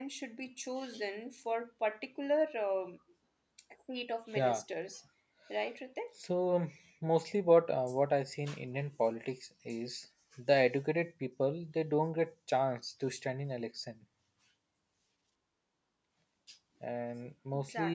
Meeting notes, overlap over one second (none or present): none